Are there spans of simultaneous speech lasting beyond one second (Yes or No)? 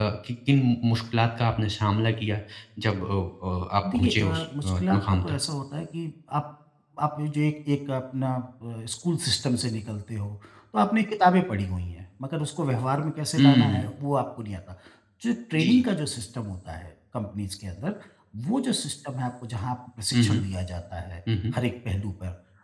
Yes